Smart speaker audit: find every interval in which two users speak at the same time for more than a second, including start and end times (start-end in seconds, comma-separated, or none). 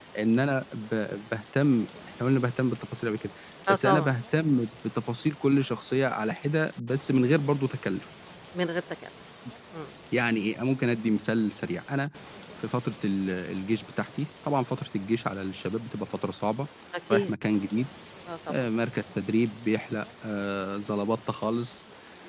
none